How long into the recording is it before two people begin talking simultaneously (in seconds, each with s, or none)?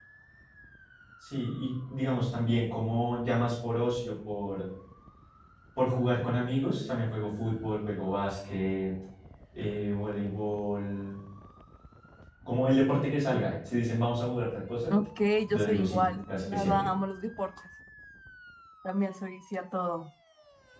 15.5 s